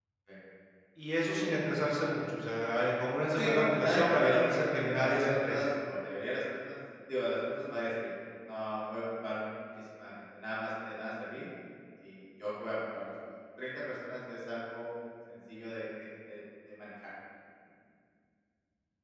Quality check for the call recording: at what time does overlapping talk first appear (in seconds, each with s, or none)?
3.4 s